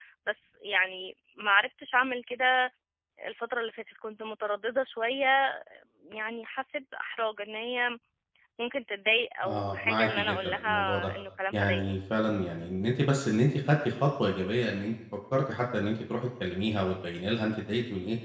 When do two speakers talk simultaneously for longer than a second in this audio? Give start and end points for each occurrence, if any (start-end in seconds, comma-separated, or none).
9.4-11.1